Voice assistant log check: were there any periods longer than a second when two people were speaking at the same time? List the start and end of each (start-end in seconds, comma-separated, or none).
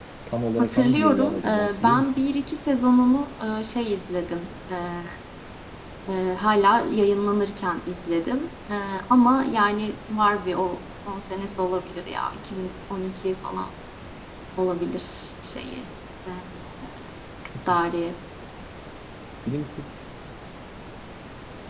0.6-2.1